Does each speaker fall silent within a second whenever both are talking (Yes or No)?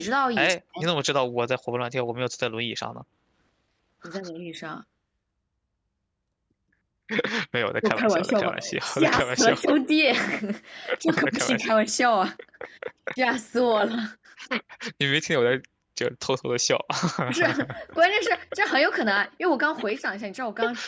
No